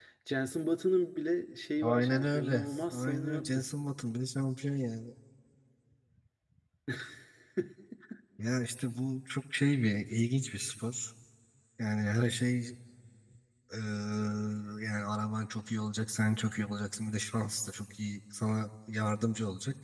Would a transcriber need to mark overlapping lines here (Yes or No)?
Yes